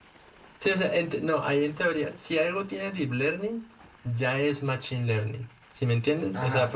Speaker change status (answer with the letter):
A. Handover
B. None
A